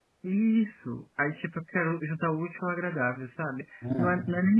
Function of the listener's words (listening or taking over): listening